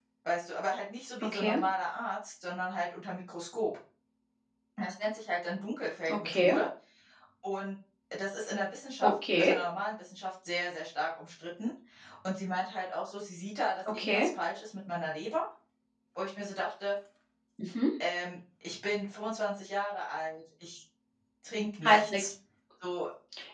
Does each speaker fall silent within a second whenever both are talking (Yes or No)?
Yes